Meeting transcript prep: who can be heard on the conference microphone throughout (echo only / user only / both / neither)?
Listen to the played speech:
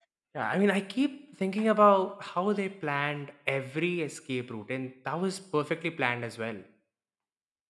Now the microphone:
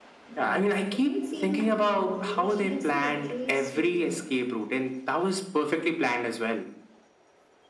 both